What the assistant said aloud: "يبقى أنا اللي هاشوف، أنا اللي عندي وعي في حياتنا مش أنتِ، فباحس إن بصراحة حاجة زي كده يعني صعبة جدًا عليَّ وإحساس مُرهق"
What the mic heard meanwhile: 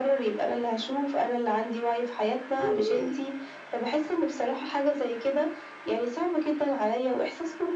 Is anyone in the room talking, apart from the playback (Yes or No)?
No